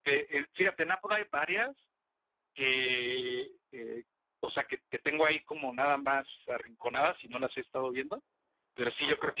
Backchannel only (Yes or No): Yes